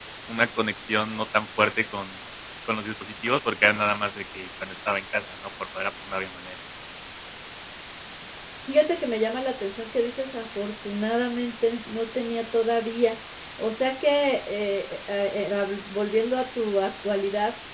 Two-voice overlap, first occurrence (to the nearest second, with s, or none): none